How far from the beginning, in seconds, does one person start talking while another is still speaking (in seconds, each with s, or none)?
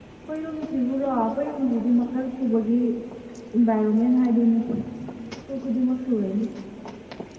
none